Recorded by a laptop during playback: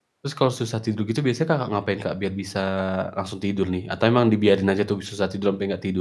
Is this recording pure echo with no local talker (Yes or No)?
No